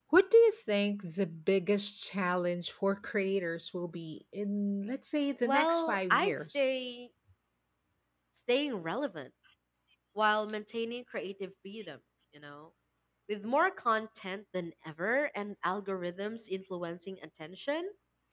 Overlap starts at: 5.4 s

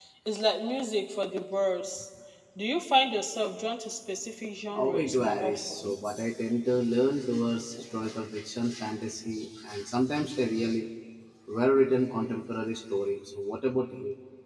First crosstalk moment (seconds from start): 4.7 s

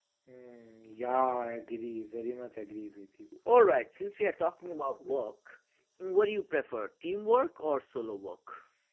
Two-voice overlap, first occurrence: none

